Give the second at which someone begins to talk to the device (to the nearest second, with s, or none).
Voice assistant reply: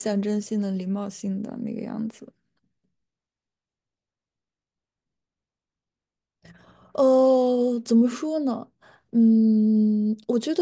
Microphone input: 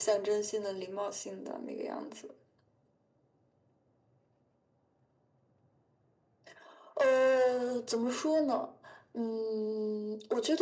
none